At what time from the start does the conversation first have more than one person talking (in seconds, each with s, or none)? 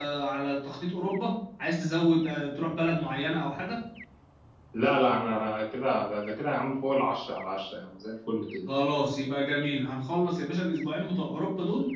none